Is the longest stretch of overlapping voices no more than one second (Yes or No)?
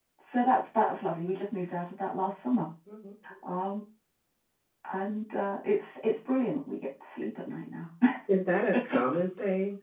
Yes